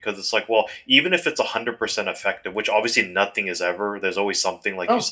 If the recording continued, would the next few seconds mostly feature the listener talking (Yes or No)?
No